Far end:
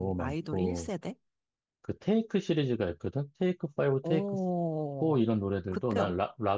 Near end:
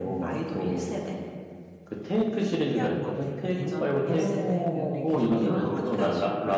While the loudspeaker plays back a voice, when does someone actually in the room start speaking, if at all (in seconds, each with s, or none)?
2.3 s